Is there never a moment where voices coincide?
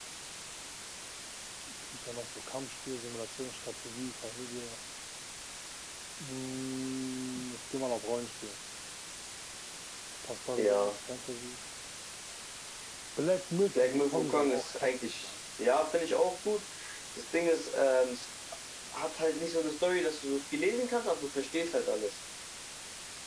No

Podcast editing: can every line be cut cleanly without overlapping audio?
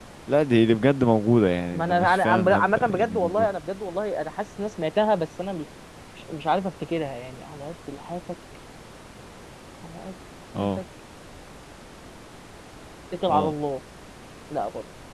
No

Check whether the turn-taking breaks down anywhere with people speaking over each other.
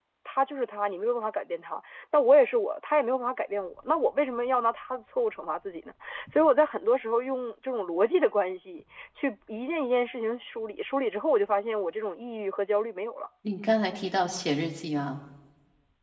No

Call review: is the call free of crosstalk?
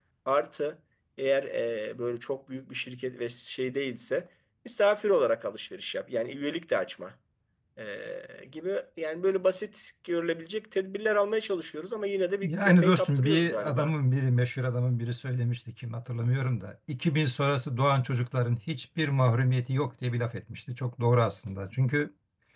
No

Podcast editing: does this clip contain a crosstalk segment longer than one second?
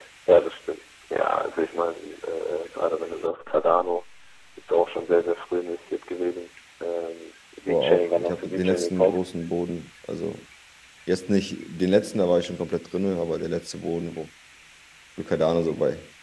Yes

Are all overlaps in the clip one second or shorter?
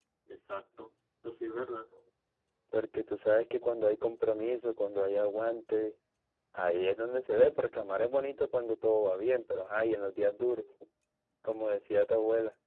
Yes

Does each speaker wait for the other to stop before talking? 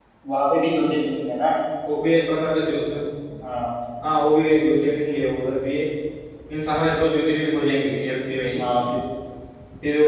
Yes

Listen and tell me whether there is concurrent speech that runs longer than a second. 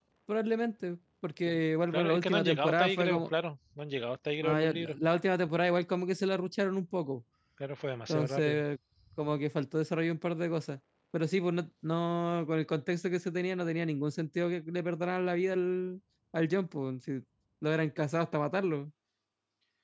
Yes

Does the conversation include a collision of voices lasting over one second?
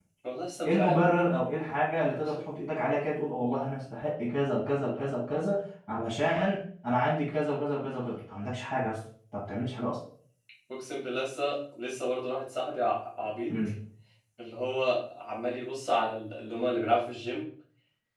No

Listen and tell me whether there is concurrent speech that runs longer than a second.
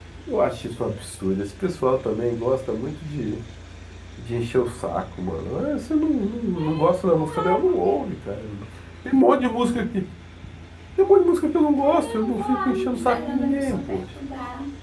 Yes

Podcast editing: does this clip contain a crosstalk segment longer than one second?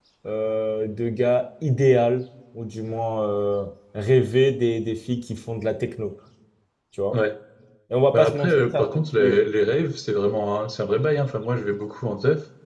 Yes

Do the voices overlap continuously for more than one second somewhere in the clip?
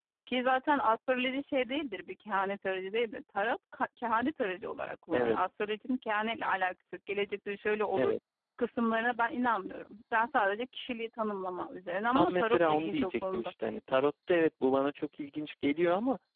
Yes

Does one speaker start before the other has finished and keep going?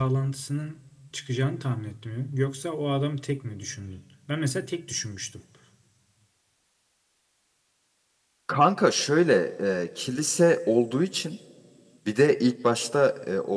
No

